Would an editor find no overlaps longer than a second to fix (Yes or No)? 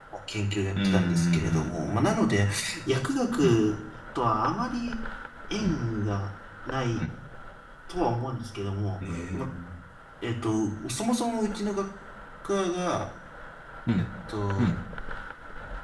No